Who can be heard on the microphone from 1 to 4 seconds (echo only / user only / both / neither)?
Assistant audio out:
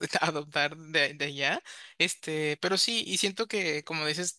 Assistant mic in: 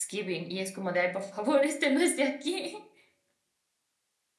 user only